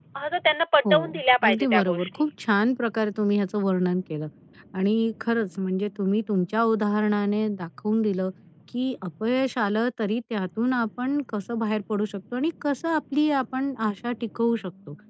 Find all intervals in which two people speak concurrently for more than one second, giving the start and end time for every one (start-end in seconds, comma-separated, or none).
0.9-2.3